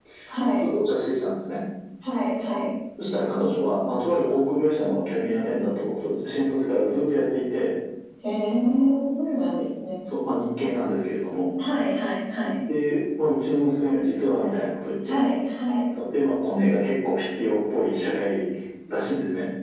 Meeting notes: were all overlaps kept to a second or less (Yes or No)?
Yes